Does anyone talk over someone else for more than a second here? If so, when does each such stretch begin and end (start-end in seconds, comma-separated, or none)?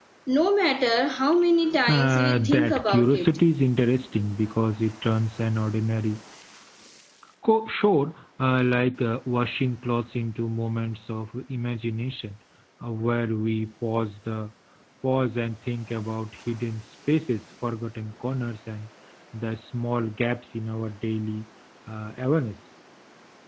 1.9-3.3